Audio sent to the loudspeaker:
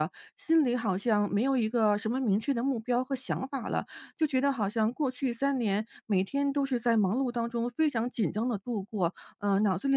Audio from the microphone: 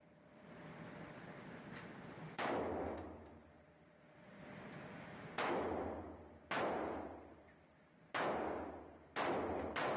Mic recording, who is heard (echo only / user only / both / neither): neither